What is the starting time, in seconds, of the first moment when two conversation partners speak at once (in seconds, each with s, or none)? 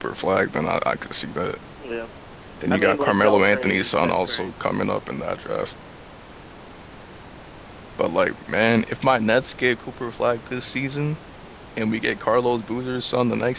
2.7 s